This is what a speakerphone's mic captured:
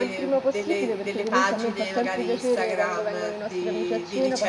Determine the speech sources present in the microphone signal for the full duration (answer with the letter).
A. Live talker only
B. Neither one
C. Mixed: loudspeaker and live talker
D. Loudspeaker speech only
C